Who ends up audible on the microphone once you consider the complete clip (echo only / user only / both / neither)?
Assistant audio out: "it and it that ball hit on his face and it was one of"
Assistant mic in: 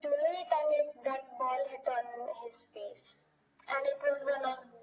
echo only